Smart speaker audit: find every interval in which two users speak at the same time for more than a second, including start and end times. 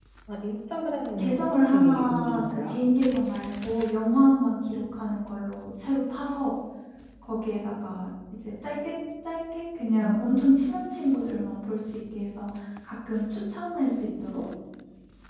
1.2-2.8

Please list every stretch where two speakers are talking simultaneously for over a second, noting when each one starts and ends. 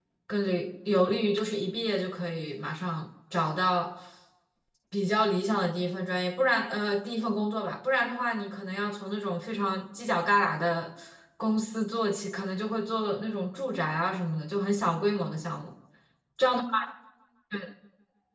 none

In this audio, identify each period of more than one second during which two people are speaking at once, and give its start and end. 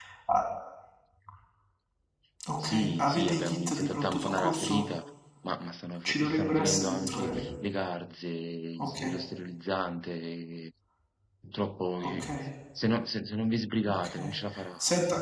2.6-4.9, 6.0-7.5

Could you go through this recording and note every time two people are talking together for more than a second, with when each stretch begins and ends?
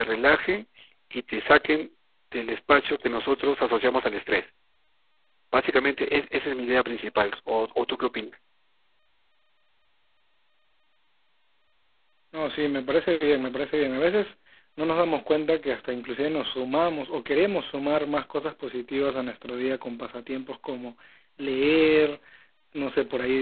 none

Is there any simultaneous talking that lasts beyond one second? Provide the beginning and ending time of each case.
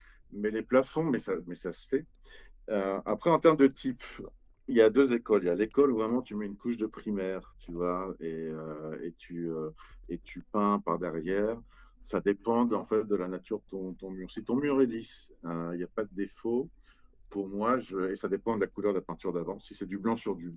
none

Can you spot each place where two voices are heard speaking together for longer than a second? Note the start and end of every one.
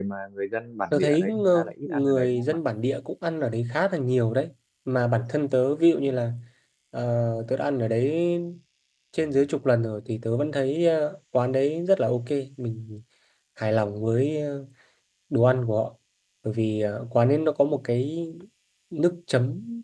0.9-2.6

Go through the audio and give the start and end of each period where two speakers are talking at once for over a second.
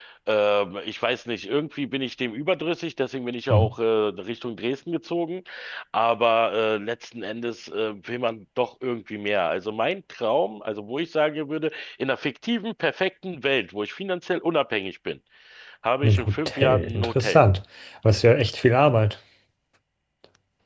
16.0-17.4

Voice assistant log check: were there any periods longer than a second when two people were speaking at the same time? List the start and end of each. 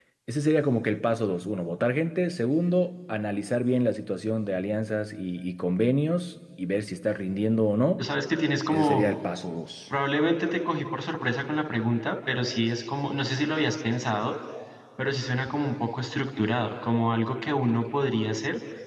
none

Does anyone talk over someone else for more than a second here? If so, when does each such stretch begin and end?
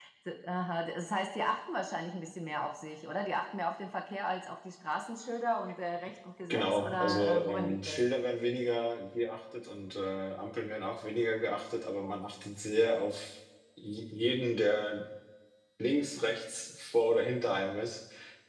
6.5-8.0

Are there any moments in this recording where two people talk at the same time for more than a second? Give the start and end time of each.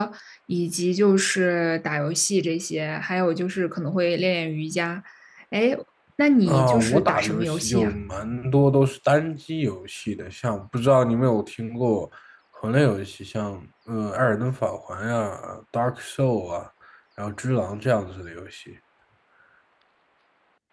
6.4-7.9

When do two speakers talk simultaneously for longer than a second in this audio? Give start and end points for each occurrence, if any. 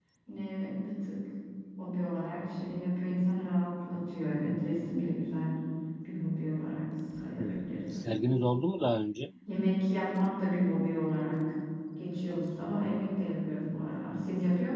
none

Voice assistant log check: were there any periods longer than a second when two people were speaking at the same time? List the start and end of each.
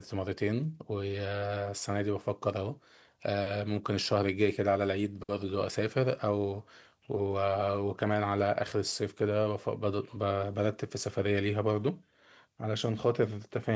none

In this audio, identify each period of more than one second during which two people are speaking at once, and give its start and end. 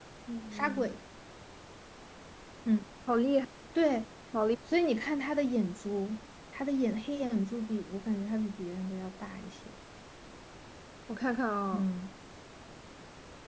none

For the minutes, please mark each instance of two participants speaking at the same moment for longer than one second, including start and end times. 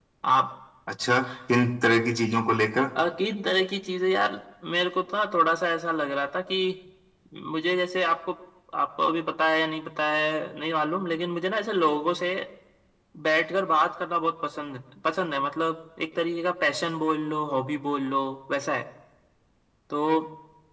none

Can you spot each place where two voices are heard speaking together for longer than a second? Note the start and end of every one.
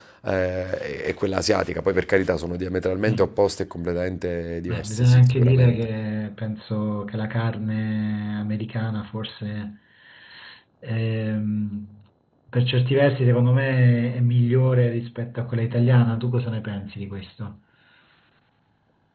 4.7-5.9

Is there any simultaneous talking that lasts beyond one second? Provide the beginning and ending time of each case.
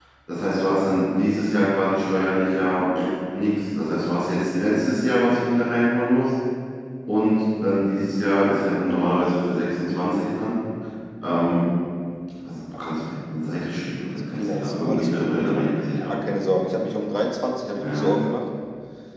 14.4-15.7

